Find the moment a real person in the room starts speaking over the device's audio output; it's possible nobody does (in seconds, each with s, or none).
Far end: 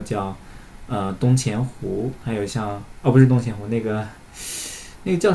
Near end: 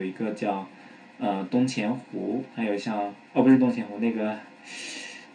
none